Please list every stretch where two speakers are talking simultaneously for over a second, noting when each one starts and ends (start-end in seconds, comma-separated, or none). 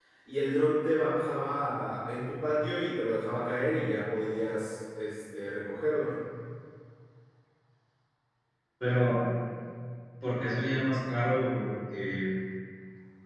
none